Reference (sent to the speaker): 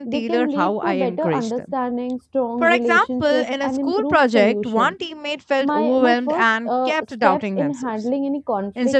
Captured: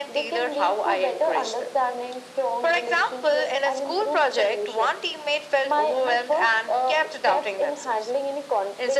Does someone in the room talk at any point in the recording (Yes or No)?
No